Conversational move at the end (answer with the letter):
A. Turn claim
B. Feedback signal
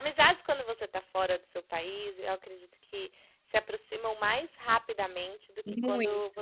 B